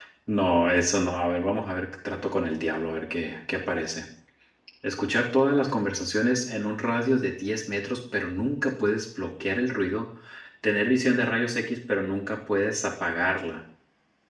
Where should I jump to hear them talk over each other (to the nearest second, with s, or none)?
none